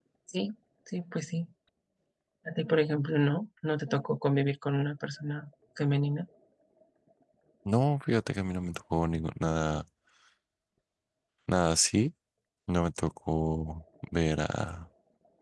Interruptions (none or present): none